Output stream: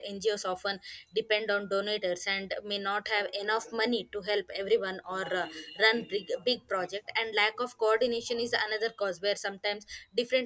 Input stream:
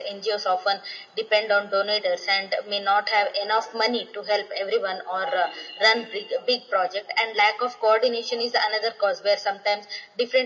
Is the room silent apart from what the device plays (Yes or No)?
Yes